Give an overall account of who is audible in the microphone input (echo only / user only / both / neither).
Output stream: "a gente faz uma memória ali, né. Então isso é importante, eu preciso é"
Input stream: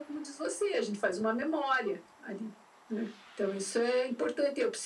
echo only